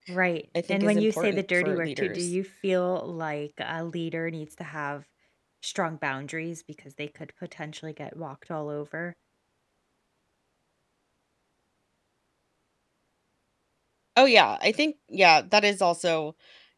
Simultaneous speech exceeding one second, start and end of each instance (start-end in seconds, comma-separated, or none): 0.7-2.3